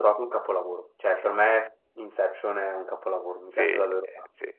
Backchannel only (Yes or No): No